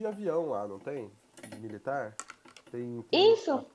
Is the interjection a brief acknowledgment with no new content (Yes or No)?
No